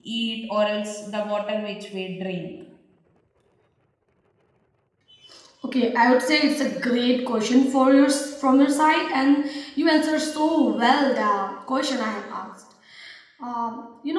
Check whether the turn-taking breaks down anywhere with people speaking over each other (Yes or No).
No